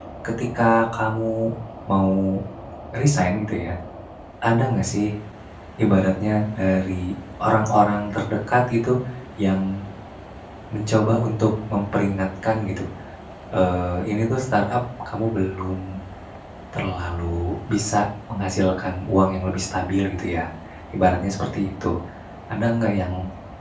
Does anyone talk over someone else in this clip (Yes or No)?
No